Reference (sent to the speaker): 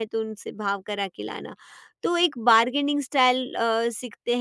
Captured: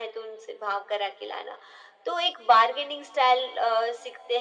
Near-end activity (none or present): none